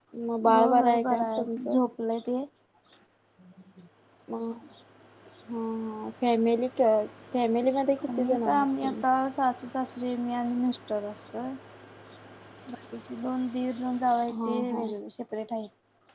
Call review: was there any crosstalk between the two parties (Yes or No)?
Yes